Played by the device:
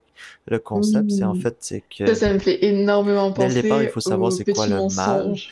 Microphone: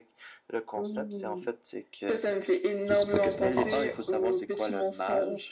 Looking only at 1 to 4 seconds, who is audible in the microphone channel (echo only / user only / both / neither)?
both